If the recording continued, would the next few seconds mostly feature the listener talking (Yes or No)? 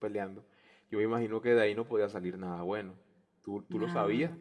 No